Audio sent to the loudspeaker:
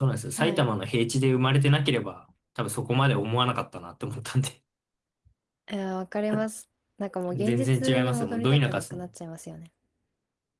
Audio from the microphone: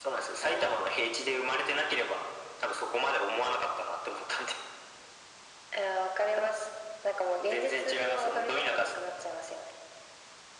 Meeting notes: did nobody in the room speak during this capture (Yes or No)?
Yes